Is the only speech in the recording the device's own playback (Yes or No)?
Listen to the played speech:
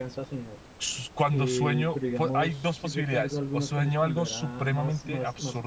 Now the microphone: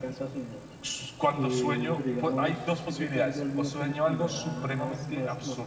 Yes